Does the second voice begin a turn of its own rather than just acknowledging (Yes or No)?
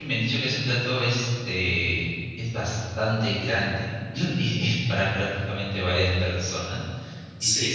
No